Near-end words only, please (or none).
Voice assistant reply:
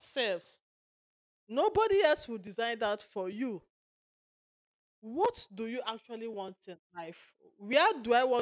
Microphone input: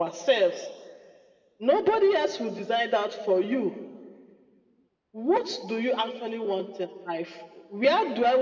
none